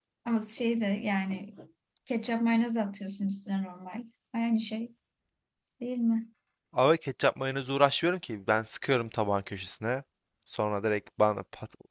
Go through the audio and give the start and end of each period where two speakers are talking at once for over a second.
none

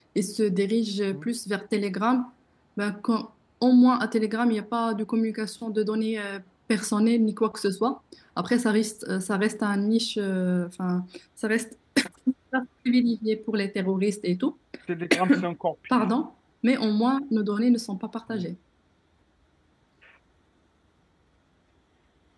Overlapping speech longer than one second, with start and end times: none

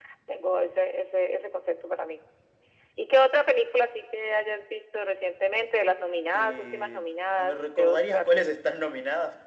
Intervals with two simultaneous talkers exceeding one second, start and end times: 6.3-8.3

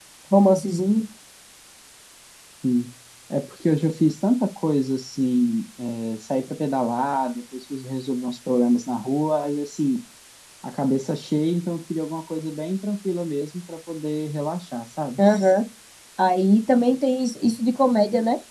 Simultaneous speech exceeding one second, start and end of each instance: none

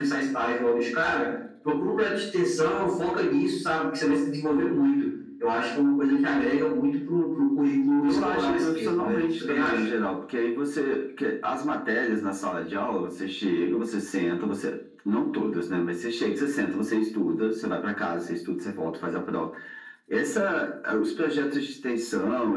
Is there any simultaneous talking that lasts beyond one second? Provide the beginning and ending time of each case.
8.0-9.8

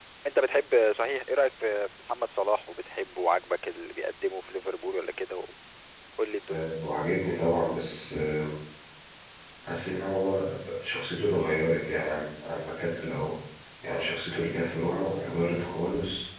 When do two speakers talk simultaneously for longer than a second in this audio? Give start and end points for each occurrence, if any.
none

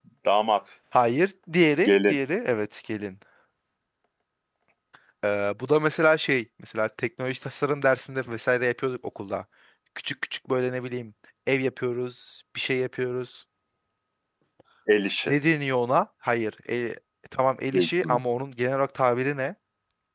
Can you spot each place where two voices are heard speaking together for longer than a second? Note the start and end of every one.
none

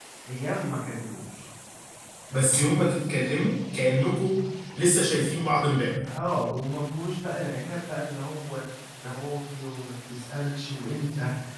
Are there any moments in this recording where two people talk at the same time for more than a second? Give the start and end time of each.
none

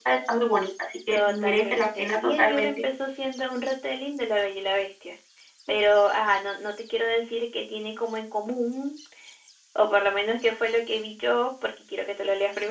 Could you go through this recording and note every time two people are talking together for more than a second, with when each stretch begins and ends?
1.1-2.8

